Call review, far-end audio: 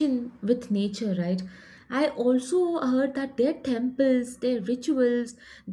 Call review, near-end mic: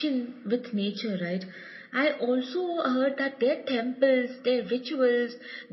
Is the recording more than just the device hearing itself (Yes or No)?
No